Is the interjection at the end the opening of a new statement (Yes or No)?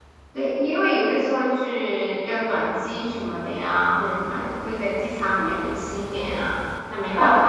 Yes